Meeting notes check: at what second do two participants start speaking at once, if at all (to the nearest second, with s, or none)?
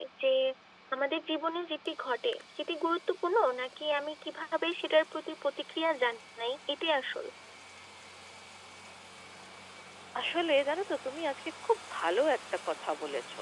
none